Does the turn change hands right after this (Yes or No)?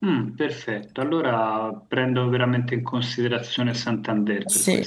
Yes